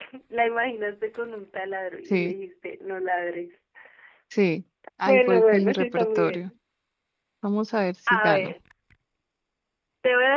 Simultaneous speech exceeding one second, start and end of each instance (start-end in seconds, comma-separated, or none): 5.0-6.5